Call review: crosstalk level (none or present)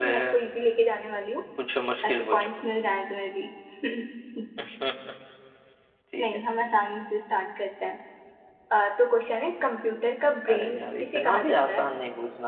present